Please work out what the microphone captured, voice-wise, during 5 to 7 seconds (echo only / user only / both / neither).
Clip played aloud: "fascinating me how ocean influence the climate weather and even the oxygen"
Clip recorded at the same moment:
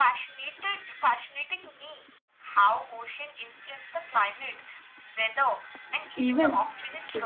both